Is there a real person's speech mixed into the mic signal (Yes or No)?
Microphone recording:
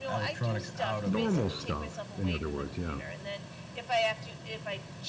Yes